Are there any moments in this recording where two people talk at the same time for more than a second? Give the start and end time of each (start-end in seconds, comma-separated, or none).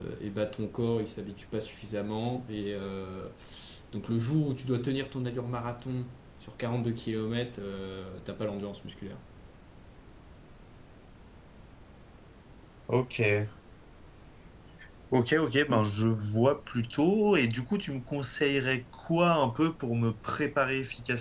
none